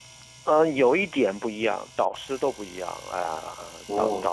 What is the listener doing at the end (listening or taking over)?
taking over